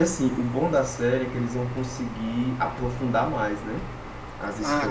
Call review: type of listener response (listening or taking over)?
taking over